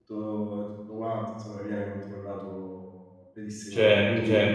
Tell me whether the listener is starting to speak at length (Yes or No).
Yes